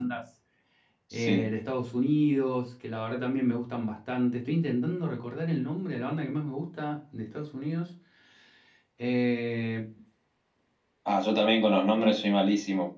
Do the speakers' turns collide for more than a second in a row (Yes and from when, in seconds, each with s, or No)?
No